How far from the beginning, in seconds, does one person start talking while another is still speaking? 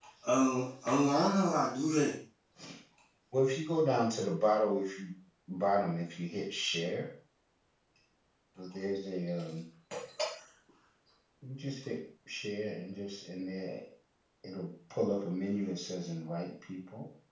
none

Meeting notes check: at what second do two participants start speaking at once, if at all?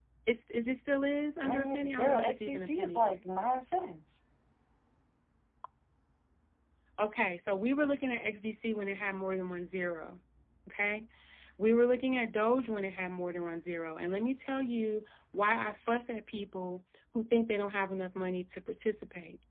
1 s

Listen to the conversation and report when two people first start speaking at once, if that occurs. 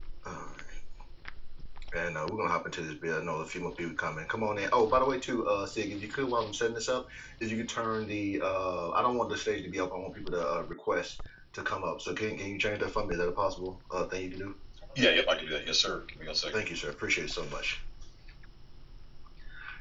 none

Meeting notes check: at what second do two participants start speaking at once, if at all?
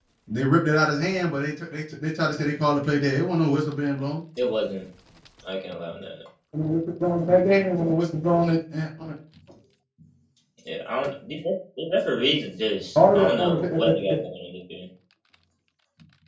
13 s

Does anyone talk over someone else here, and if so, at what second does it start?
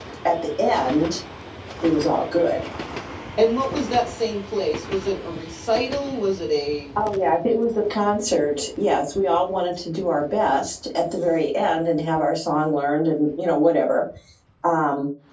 none

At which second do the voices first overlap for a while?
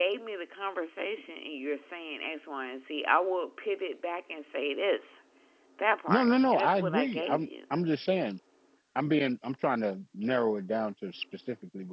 6 s

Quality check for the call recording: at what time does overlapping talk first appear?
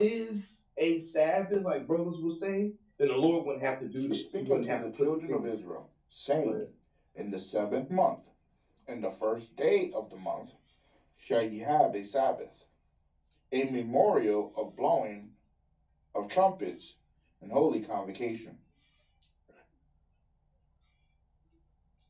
4 s

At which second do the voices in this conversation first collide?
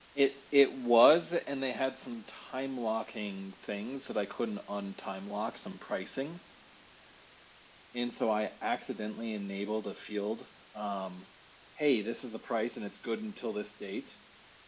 none

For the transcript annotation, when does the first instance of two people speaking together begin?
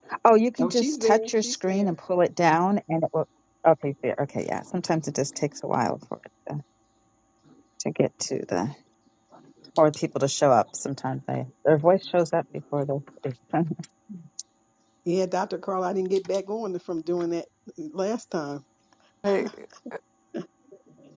1 s

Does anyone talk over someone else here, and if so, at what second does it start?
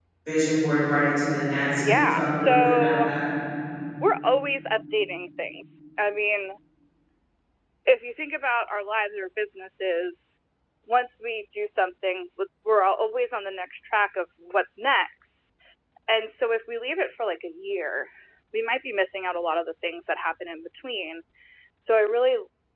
2 s

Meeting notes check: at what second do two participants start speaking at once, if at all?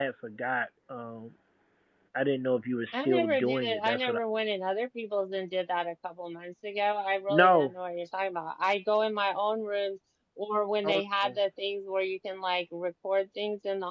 3 s

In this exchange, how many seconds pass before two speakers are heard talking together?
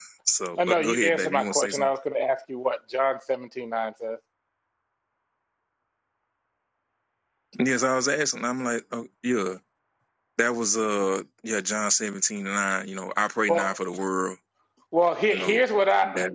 1 s

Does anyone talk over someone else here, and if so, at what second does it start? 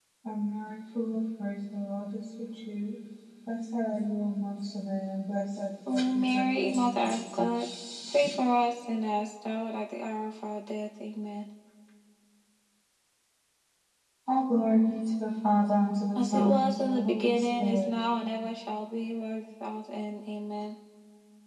6 s

